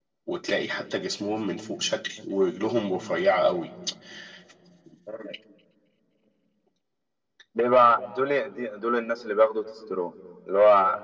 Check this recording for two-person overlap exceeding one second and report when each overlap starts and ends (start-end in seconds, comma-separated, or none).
none